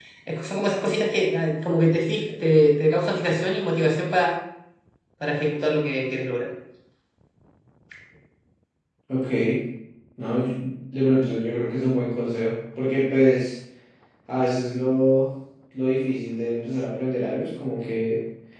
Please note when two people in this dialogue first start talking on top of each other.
none

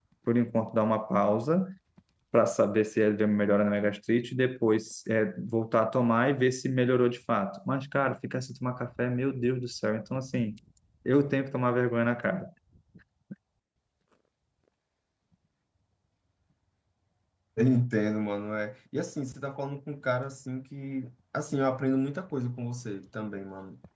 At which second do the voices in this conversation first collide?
none

